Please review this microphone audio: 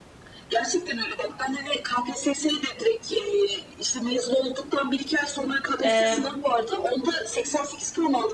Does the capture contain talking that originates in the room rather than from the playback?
Yes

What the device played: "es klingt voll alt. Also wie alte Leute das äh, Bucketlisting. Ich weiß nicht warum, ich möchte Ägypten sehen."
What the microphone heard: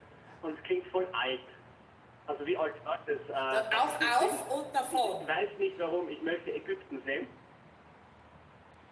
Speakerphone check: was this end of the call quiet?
No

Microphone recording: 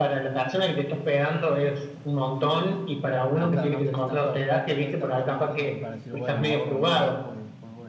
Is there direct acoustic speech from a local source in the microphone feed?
Yes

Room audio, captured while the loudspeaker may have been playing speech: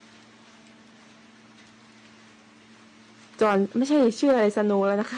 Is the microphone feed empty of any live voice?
No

